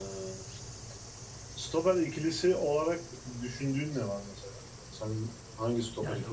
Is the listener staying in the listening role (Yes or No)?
No